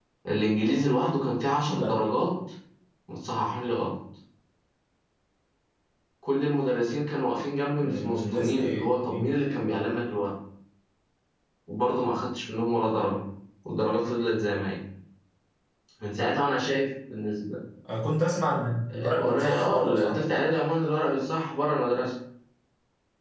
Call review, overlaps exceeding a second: present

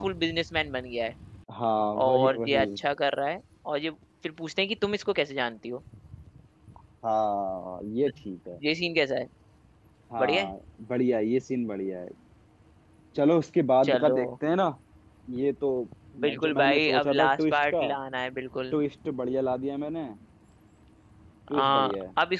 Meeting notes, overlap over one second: present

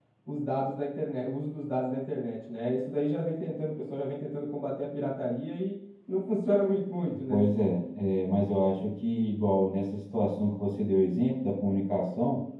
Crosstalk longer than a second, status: none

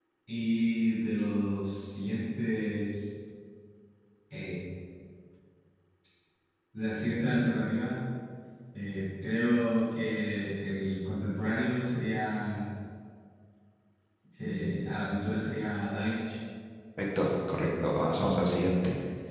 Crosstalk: none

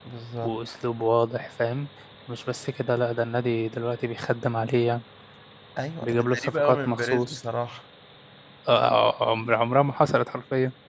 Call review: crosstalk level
present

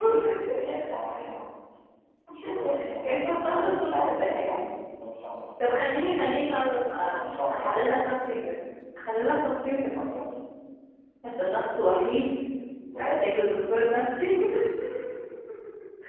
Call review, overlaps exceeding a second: present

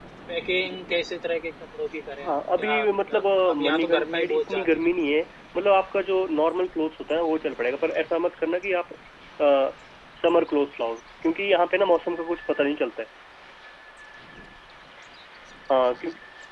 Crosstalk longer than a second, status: present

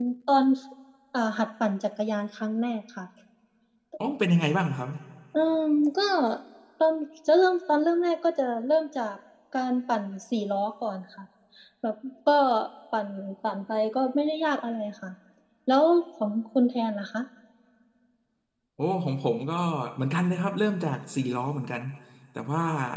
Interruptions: none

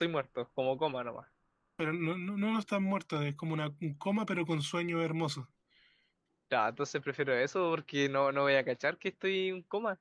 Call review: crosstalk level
none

